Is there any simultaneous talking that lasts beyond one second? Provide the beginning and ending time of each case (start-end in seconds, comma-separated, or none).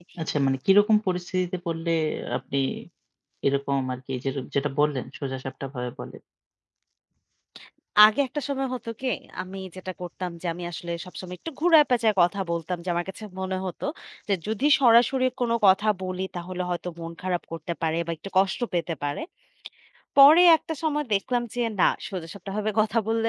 none